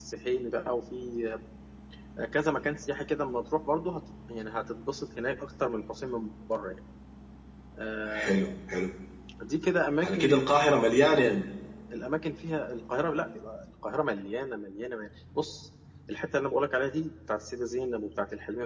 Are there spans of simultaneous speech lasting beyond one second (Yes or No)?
No